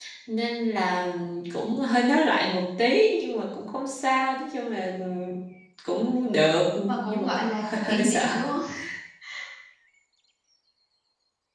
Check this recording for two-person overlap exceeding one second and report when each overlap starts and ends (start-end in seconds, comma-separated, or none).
6.9-8.2